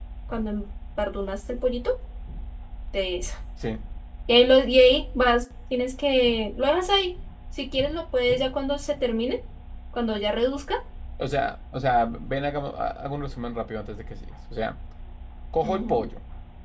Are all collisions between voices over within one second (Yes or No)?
Yes